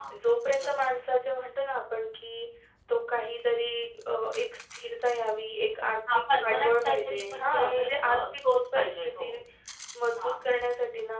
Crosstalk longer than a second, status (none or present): present